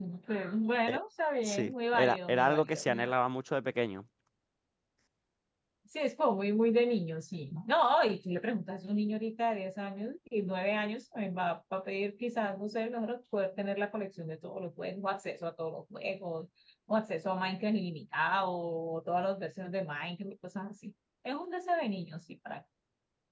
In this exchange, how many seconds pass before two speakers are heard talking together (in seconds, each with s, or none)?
1.4 s